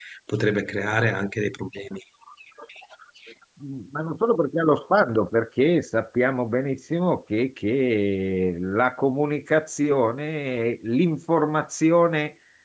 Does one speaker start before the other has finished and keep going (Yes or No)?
No